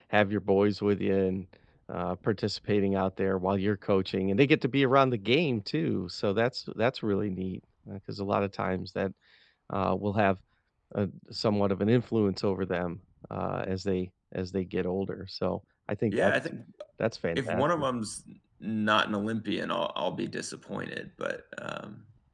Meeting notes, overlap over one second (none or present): none